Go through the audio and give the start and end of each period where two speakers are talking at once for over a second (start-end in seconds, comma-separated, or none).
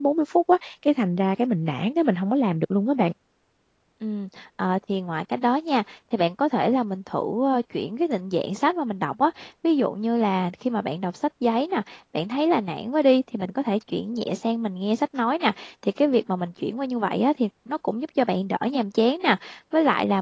none